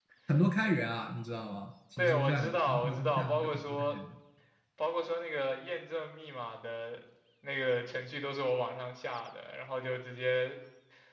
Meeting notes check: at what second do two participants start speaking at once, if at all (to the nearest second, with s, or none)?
2 s